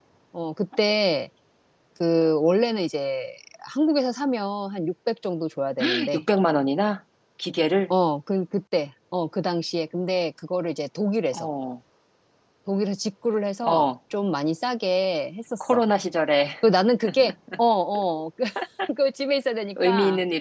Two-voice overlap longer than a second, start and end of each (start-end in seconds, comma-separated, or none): none